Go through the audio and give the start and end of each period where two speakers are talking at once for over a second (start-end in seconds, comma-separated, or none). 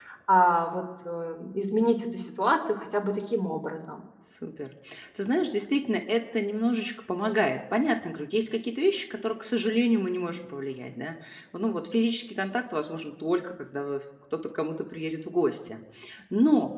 none